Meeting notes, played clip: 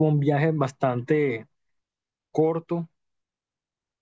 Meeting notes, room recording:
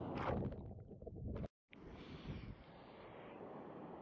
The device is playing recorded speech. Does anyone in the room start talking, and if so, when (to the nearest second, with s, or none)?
none